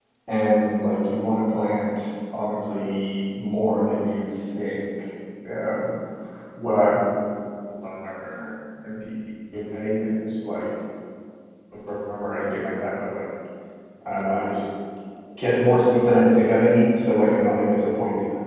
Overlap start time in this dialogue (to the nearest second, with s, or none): none